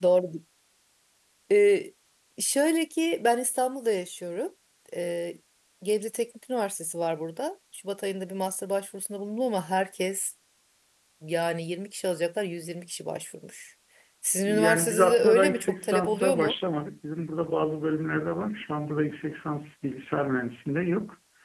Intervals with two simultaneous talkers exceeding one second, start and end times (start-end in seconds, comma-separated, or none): 14.4-16.5